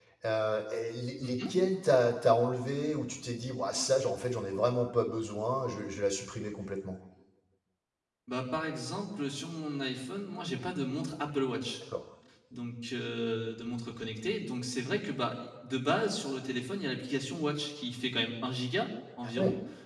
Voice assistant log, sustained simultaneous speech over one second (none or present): none